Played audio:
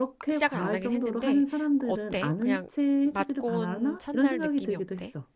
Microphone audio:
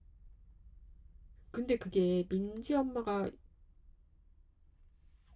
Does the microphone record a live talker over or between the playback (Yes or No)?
Yes